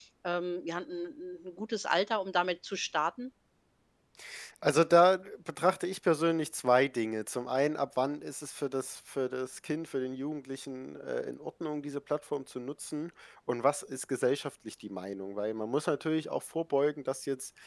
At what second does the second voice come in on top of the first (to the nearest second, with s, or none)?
none